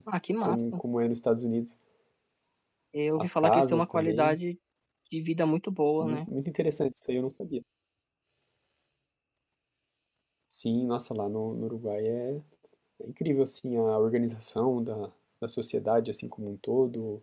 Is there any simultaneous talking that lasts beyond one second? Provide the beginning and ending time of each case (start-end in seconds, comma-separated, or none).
3.2-4.4